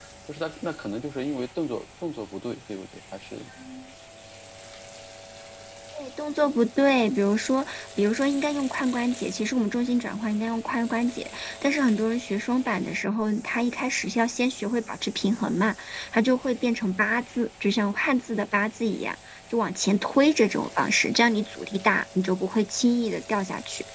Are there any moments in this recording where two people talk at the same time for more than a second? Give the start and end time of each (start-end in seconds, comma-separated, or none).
none